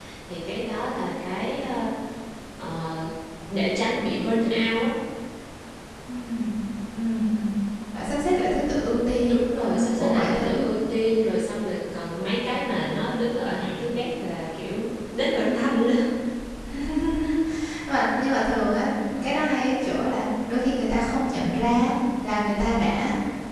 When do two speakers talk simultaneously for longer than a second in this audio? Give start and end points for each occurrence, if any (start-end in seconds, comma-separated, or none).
9.3-10.7